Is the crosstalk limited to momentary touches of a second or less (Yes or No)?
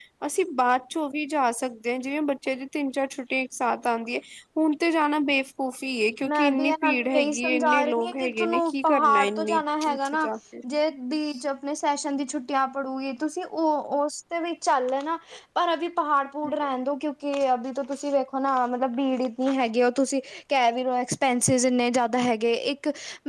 No